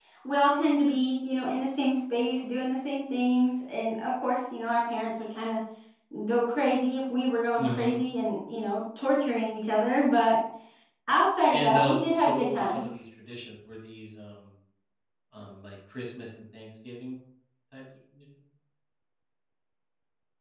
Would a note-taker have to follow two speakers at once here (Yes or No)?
Yes